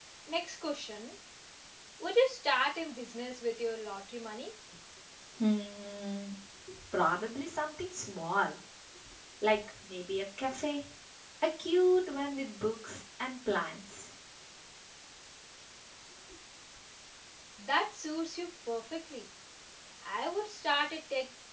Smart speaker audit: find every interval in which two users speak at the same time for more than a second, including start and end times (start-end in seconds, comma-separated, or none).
none